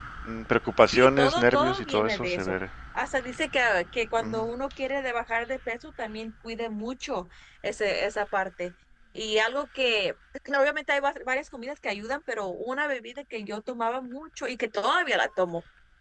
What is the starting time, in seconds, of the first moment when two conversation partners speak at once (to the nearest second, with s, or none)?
1 s